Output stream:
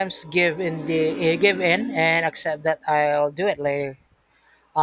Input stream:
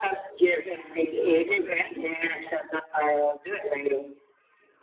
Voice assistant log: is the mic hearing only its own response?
Yes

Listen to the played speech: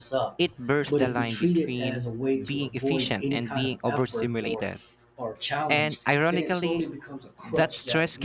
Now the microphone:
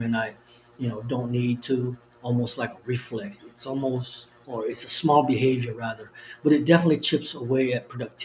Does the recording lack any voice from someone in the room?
No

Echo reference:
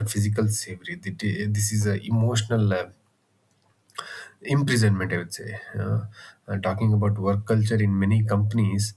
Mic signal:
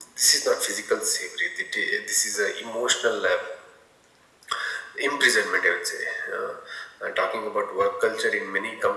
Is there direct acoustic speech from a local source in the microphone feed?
No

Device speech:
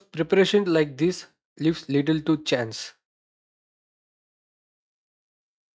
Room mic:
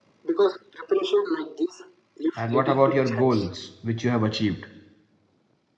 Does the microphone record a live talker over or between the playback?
Yes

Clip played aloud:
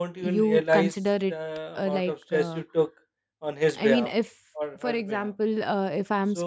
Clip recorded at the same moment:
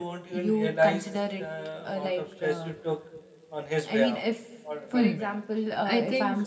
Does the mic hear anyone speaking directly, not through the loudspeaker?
Yes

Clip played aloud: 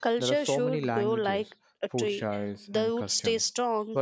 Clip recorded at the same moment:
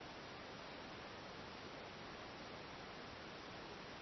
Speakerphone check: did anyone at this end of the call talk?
No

